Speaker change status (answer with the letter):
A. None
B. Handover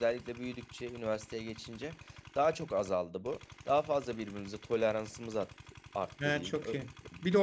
B